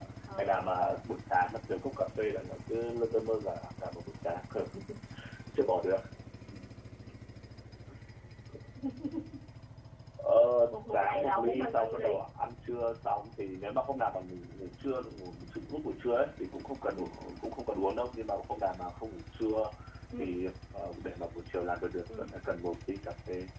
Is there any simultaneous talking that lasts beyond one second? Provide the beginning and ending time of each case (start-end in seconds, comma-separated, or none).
10.7-12.2